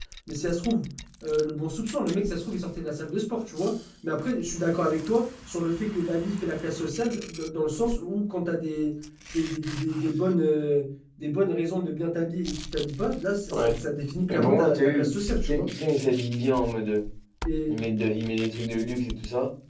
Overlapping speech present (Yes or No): Yes